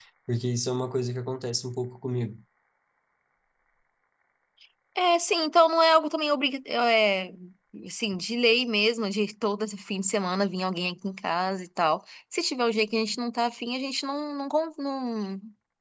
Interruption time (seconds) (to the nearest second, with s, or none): none